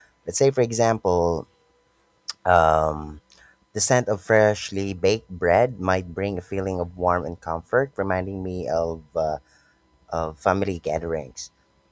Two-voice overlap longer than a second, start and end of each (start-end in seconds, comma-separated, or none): none